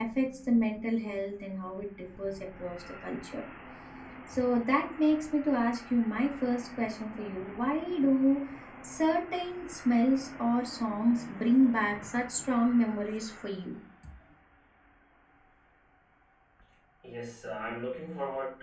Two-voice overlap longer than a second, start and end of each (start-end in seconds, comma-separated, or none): none